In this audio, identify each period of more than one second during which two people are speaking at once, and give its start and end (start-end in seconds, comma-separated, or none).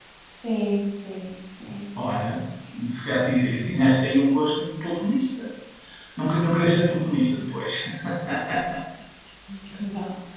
none